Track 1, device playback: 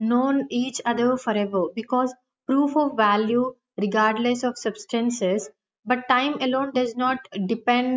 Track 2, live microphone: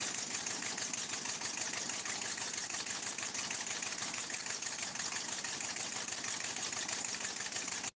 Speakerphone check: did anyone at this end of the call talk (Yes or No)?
No